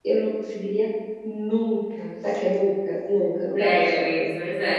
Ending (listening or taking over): taking over